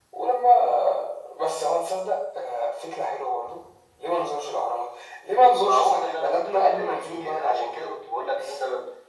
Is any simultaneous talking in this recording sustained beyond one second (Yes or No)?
Yes